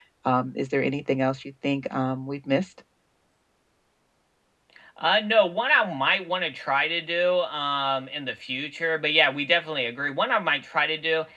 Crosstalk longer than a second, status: none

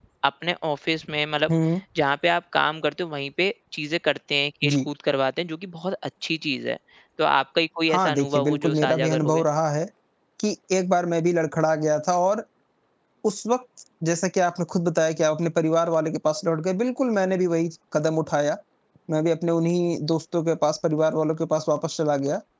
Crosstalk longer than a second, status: present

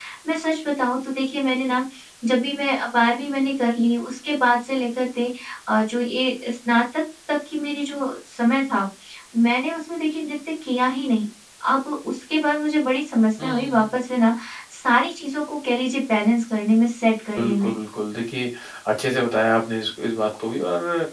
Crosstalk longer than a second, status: none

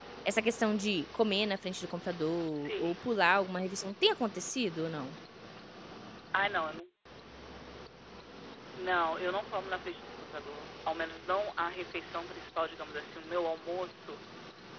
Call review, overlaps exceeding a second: none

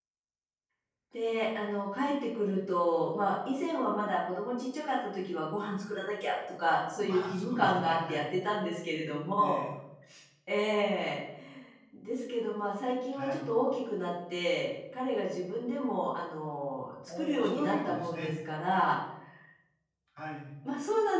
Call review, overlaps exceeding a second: present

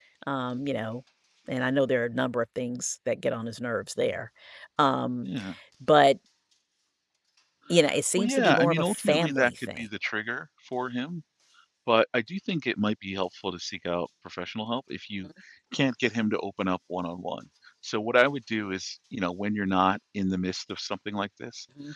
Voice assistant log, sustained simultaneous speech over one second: present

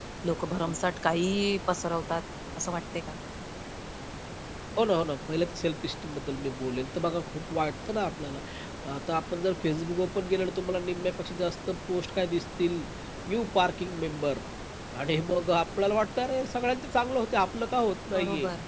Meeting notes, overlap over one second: none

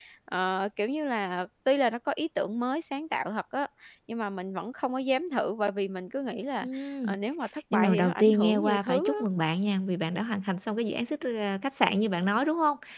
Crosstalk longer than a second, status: present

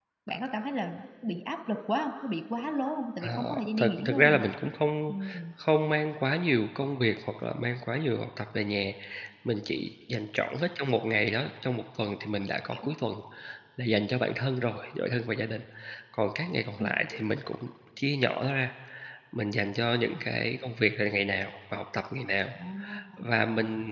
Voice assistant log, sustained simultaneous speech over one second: present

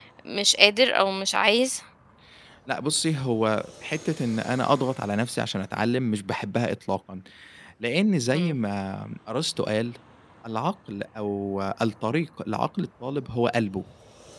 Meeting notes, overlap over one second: none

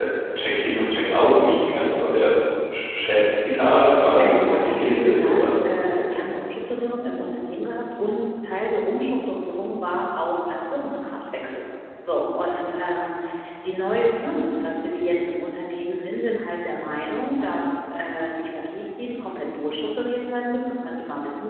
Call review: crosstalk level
present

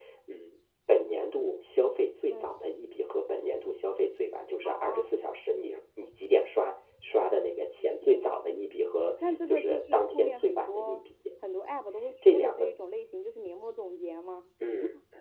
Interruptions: present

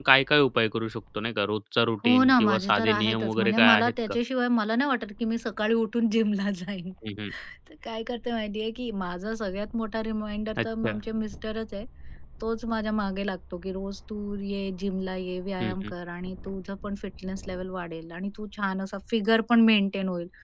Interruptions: present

